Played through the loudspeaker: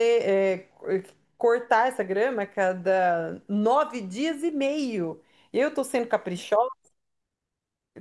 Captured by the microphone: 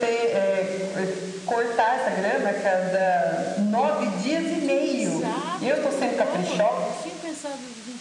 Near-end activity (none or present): present